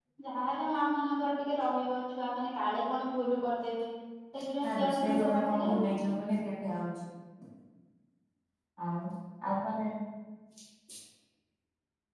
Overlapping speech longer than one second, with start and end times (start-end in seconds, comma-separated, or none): 4.6-6.0